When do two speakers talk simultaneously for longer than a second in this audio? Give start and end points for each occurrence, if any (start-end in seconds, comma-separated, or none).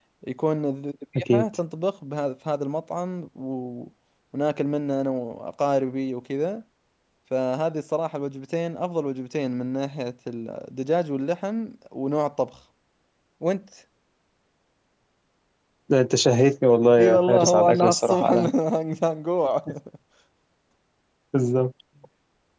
17.0-18.3